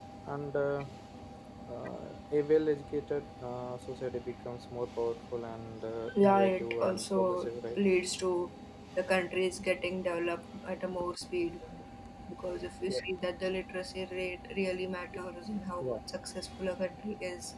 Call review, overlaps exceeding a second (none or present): present